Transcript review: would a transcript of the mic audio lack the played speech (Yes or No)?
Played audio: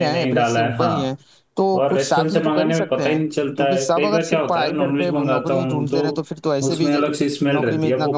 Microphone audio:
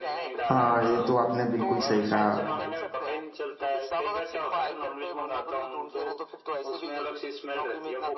No